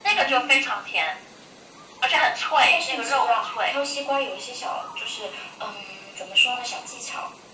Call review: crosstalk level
present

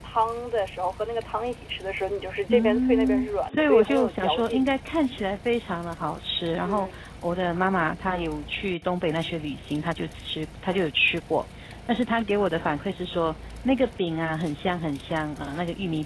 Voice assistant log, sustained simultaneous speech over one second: present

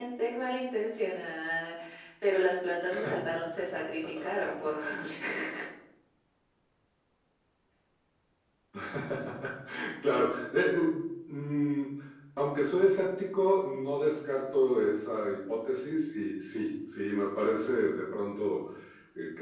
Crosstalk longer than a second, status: none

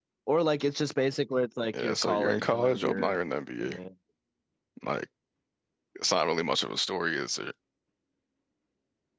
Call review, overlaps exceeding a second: present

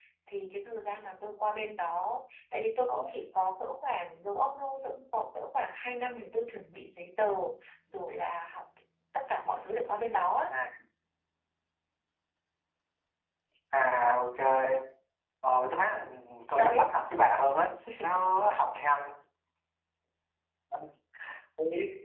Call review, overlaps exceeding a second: none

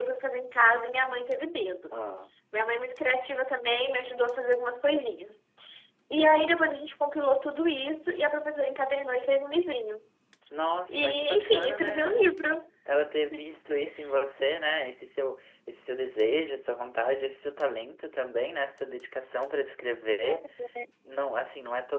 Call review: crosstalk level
present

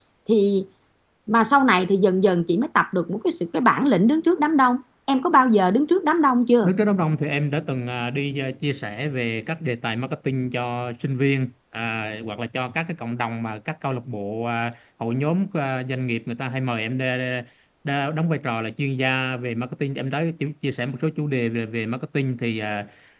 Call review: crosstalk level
none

